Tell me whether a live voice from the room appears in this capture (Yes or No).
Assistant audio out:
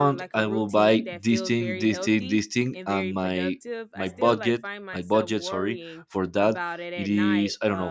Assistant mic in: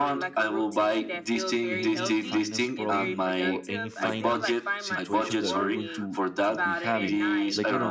Yes